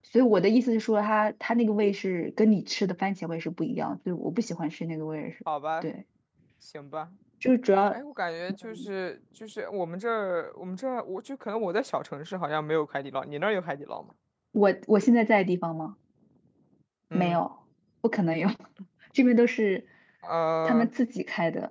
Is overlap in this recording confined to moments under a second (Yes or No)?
Yes